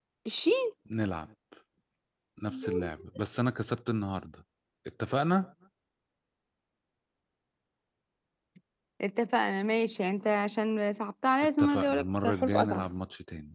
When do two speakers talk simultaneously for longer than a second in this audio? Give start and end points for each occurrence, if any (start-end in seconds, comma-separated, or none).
11.6-12.8